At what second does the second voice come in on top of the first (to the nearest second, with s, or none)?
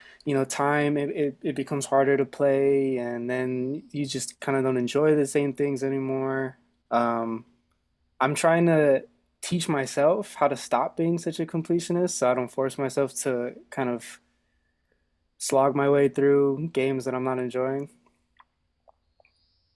none